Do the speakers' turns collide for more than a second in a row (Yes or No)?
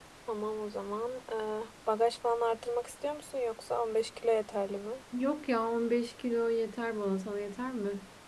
No